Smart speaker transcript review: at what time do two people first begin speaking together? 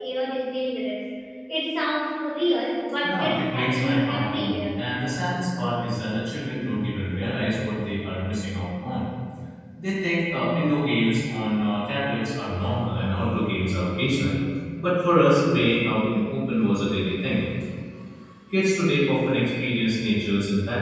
3.0 s

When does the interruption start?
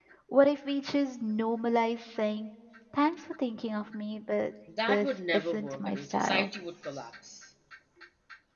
4.7 s

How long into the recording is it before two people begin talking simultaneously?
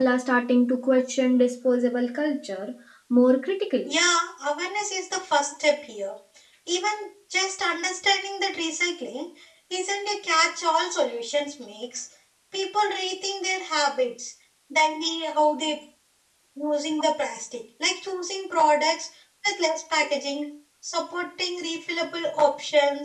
none

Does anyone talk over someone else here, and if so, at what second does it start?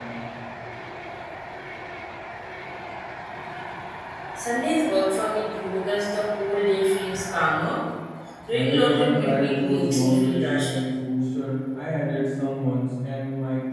8.5 s

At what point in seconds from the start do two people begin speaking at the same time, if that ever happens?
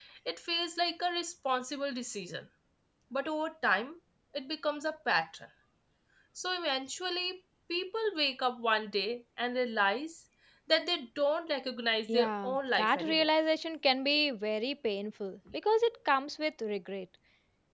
12.1 s

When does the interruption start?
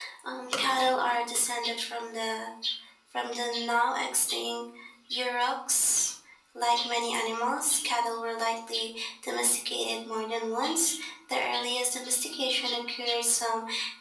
none

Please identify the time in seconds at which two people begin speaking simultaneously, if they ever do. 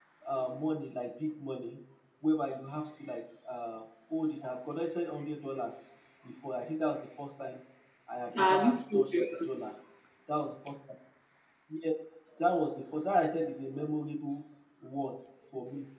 8.4 s

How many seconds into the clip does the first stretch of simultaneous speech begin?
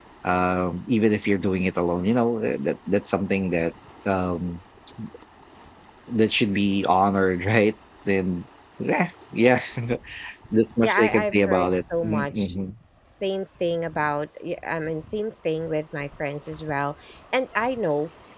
10.8 s

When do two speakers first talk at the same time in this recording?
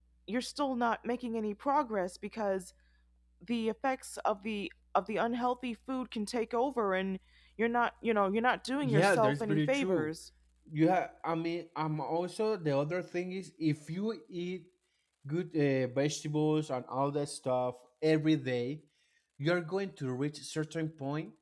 8.8 s

